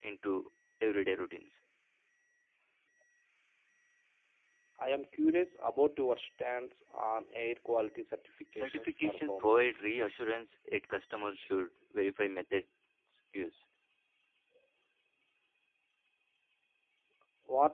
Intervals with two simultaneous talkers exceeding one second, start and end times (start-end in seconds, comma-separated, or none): 8.5-9.8